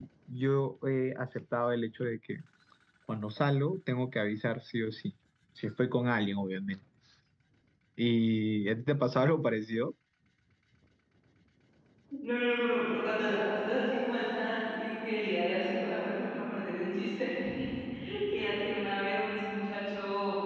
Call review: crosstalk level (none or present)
none